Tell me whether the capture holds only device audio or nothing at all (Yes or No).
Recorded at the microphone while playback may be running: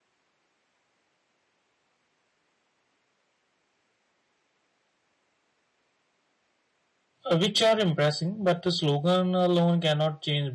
No